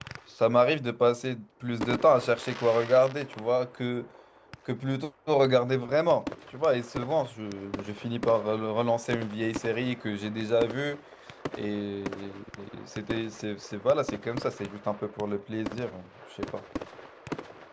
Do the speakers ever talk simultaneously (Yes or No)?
No